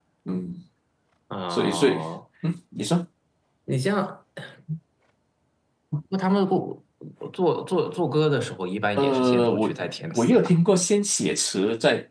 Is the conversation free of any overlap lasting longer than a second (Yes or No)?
No